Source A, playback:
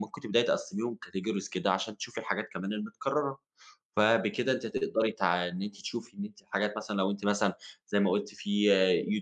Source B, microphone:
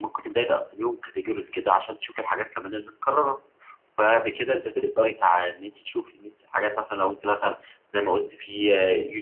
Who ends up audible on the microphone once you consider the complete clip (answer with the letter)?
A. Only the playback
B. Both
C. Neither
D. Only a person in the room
A